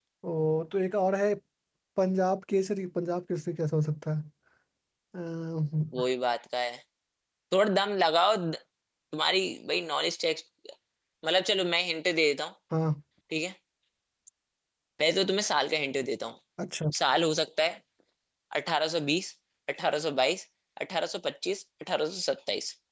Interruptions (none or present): none